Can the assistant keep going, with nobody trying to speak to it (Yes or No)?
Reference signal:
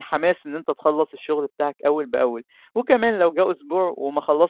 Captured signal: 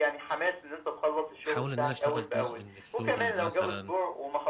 No